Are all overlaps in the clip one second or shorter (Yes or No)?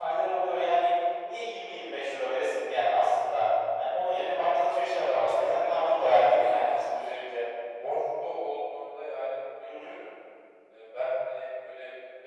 No